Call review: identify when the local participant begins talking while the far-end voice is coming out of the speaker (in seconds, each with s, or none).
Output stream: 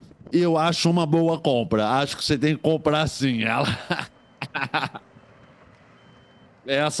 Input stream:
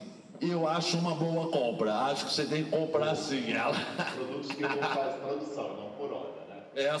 2.9 s